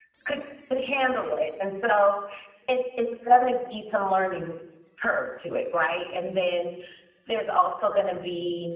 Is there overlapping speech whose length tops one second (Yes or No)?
No